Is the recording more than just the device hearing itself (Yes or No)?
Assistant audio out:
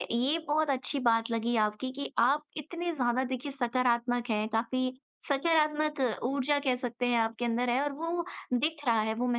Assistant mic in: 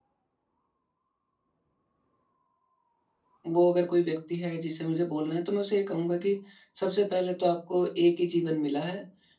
Yes